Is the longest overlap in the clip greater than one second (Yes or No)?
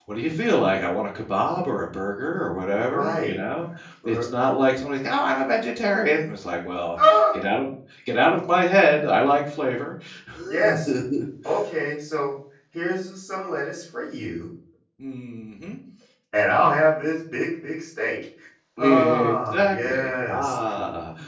Yes